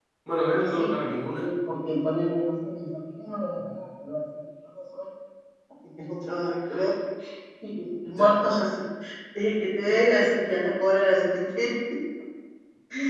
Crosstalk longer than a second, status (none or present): none